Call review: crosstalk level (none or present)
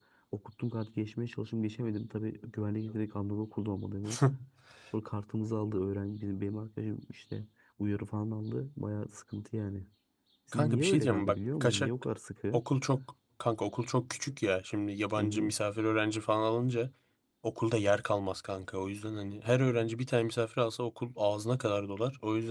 present